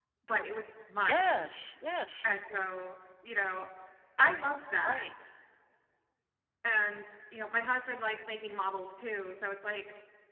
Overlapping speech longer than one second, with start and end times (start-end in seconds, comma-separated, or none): none